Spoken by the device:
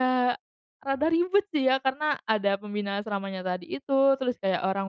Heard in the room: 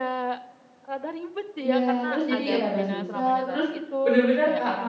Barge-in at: 2 s

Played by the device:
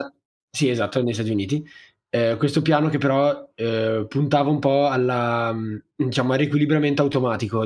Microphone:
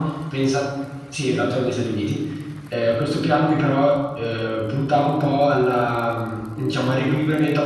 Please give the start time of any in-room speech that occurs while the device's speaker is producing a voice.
none

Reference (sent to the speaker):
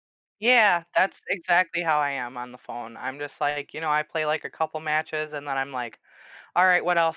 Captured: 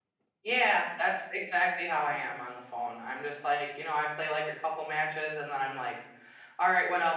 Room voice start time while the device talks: none

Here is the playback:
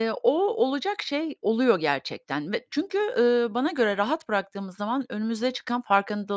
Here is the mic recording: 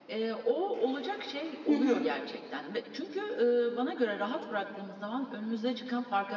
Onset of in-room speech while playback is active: 2 s

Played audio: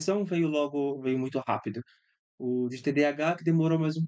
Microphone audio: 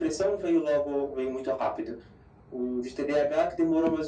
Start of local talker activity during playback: none

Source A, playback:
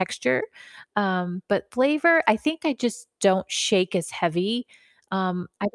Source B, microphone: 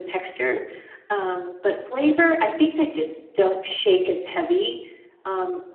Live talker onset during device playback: none

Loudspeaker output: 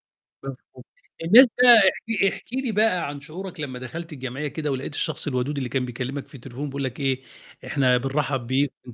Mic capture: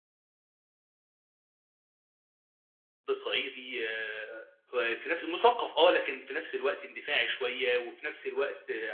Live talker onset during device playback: 3 s

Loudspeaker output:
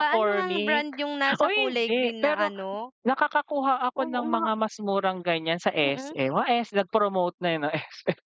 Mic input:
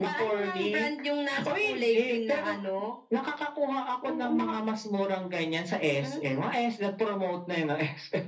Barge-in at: none

